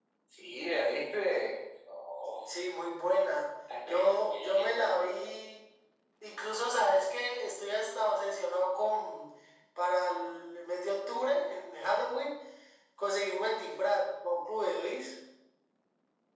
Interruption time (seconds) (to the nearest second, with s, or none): 4 s